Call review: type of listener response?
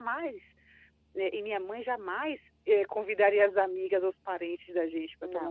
listening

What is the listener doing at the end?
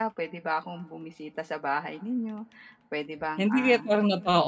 taking over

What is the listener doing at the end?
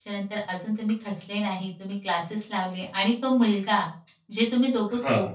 listening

